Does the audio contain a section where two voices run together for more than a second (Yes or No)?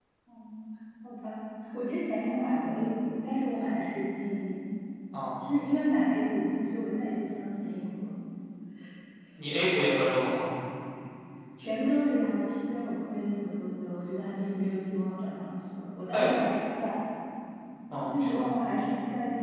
No